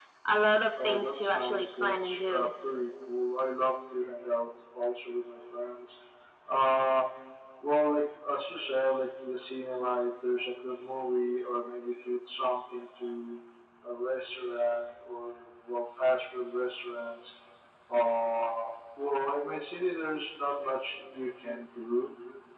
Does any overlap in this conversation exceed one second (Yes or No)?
Yes